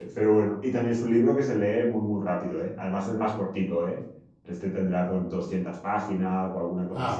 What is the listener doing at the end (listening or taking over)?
listening